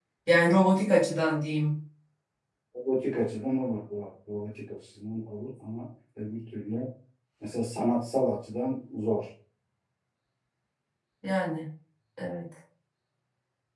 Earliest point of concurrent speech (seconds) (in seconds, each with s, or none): none